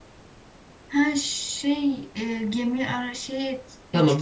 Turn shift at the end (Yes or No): Yes